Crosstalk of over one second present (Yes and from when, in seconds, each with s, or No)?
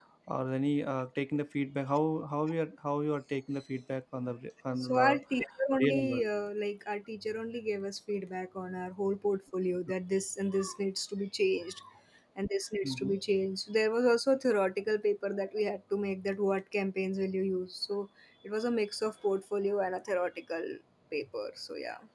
No